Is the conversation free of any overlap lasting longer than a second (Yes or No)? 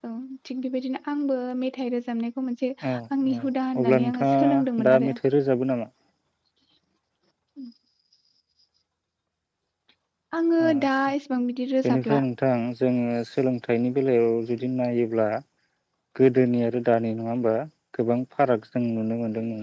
No